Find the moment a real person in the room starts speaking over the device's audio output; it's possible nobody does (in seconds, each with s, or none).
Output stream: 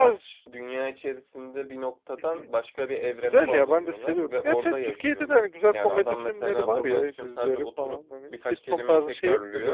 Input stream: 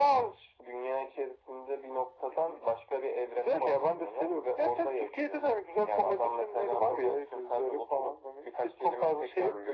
none